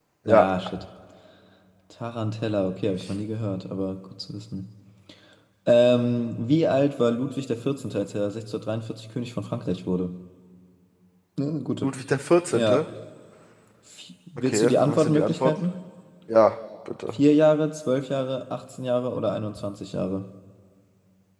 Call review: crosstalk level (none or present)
present